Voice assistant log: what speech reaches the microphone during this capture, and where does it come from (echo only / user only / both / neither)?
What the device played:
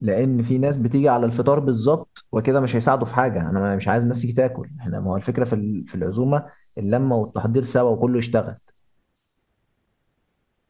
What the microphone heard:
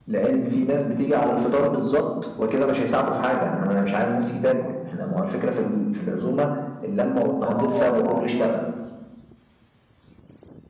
both